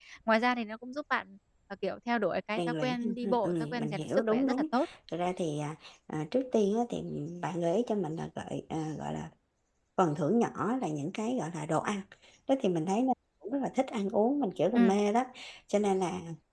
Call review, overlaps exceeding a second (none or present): present